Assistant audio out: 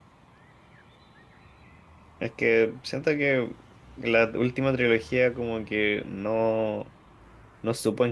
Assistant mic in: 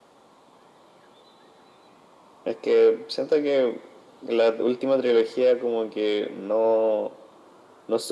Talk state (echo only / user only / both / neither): echo only